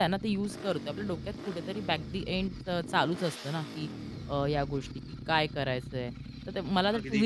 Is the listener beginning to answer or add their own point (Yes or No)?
No